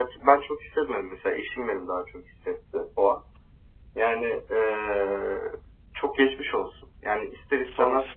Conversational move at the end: listening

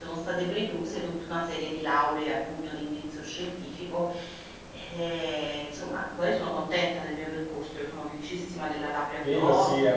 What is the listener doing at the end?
taking over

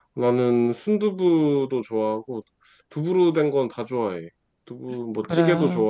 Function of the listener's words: listening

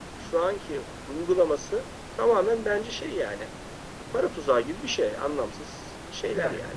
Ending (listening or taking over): taking over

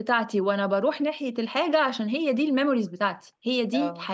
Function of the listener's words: listening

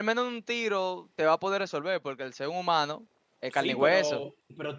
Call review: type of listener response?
taking over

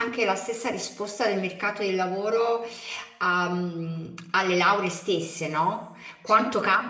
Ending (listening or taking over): listening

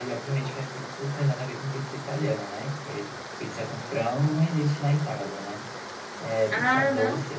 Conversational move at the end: listening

